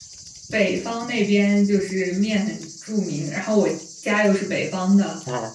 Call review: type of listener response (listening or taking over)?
listening